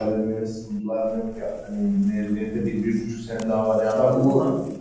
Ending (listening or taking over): taking over